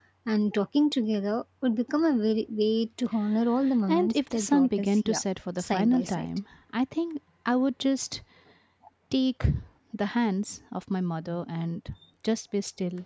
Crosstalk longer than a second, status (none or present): present